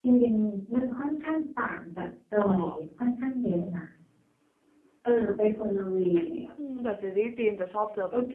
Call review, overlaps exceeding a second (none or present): none